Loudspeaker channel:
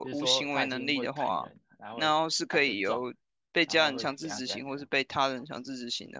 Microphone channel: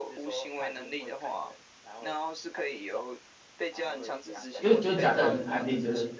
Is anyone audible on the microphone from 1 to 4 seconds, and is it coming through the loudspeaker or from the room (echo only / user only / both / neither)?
echo only